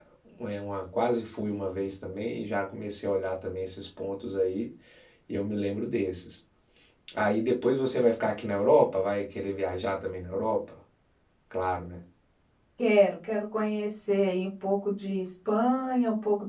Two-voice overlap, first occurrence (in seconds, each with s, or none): none